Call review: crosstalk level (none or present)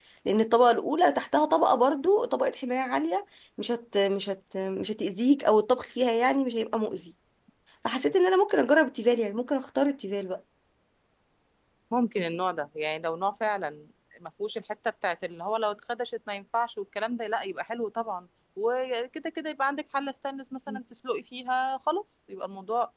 none